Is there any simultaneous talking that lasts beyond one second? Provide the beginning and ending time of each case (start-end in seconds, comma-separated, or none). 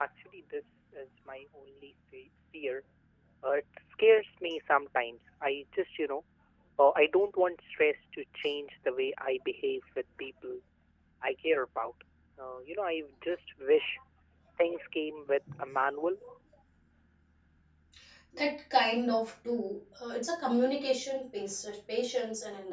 none